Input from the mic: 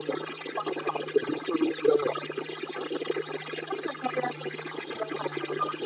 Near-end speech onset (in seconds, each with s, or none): none